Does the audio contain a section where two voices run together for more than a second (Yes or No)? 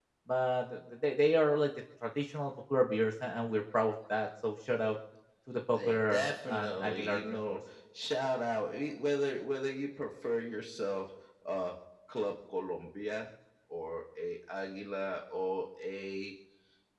Yes